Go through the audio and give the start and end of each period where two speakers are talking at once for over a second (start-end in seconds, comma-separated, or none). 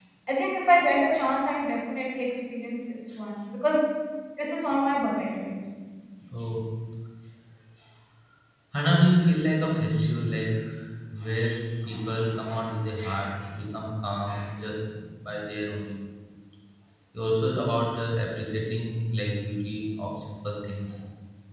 none